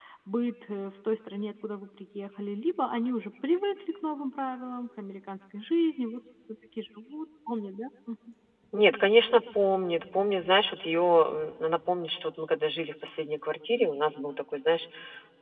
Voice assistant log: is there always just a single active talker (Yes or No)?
Yes